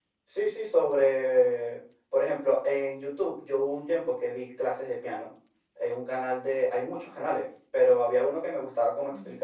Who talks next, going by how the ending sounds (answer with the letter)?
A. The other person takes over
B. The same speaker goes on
B